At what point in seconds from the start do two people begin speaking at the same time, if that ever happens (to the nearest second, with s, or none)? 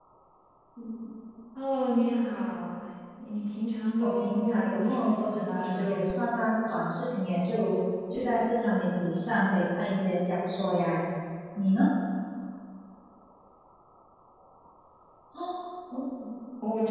4 s